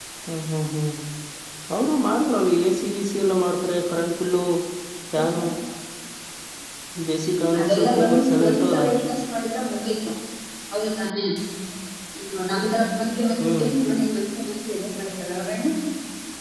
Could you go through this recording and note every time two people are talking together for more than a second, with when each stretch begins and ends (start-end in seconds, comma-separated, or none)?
7.6-8.8